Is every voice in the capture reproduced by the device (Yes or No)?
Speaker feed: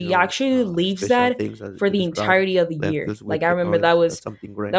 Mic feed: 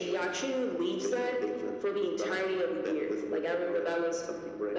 Yes